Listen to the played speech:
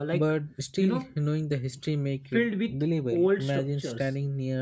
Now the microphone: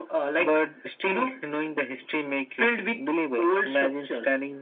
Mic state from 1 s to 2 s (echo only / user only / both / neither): echo only